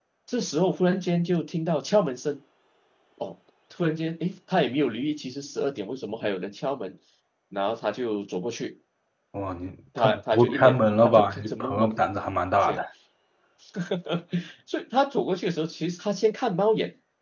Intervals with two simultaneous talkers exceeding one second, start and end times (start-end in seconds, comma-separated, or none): 10.0-11.9